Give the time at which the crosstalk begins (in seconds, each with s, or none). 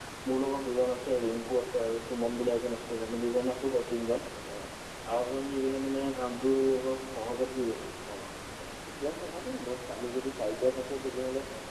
none